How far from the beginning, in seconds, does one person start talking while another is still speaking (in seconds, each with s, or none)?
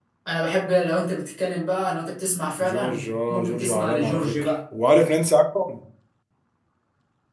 2.6 s